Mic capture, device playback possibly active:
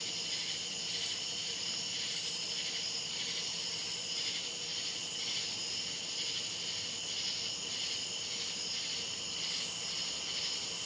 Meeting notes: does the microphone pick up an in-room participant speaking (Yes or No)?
No